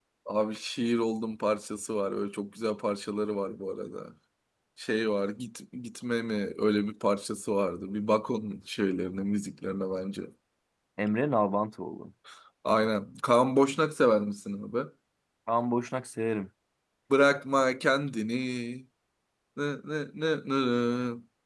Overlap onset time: none

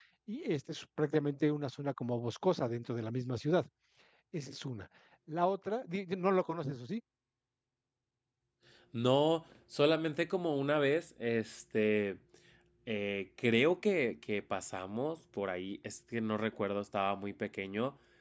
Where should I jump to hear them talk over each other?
none

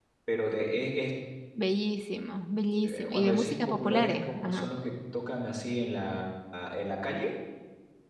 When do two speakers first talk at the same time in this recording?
3 s

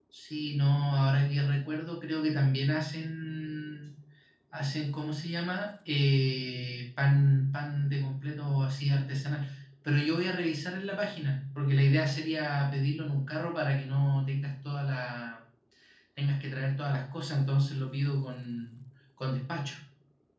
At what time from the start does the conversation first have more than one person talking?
none

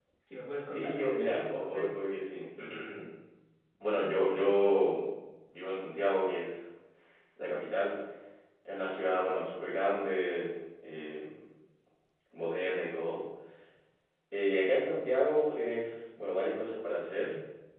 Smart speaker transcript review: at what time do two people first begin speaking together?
1 s

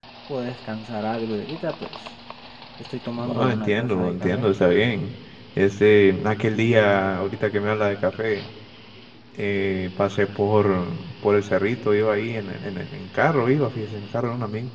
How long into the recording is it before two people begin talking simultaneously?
3 s

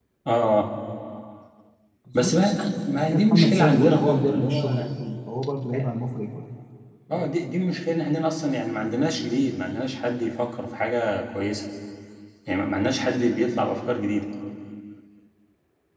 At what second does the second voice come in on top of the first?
2 s

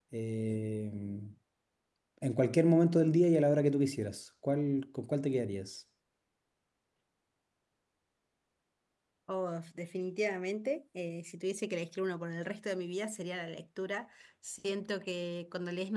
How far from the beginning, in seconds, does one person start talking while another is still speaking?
none

